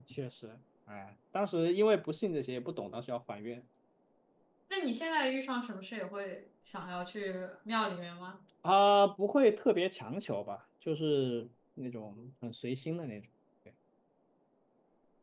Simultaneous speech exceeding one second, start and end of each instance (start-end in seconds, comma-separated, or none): none